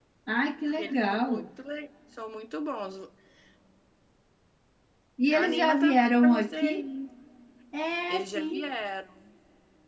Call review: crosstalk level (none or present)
present